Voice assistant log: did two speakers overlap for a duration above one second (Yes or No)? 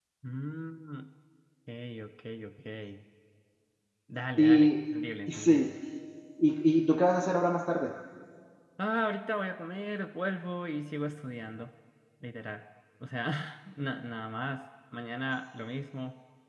No